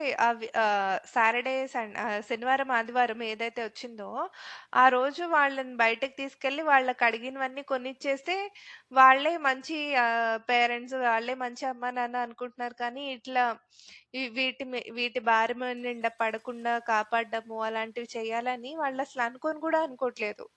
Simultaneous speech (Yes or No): No